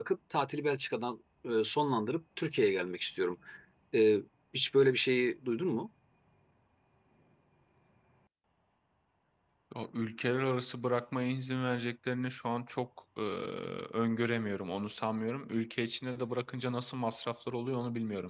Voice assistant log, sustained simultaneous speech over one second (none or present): none